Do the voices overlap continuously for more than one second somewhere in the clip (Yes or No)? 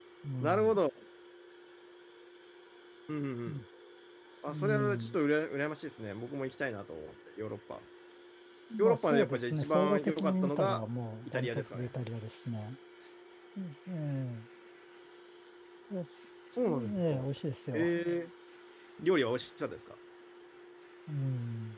Yes